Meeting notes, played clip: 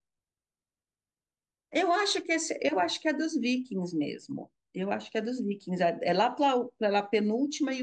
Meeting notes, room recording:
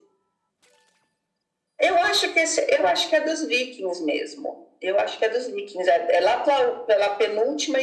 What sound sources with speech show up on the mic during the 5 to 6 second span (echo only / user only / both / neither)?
echo only